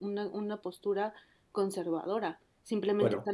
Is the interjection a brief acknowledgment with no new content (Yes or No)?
Yes